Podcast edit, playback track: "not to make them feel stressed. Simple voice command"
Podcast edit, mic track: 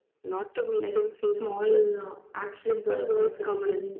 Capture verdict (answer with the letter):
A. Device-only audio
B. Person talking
B